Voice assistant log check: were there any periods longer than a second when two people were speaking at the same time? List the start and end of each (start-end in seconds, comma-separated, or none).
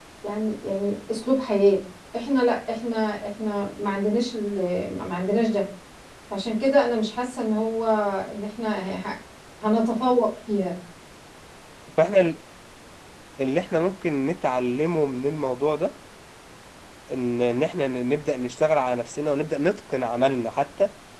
none